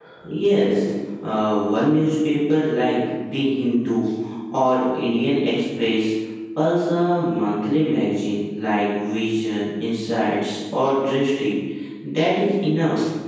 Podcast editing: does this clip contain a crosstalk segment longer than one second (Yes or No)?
No